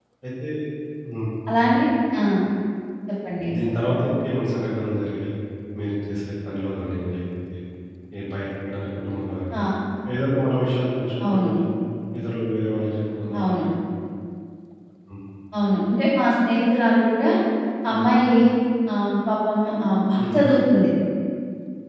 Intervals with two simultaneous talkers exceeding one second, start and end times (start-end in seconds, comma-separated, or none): none